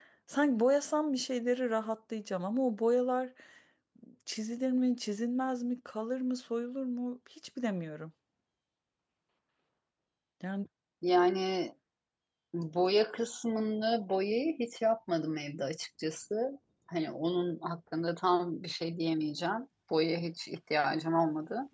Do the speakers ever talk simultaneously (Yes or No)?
No